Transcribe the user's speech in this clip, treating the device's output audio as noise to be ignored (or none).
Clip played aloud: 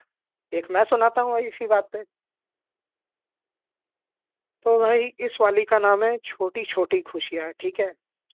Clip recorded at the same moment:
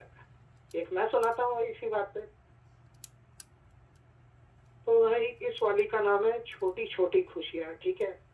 none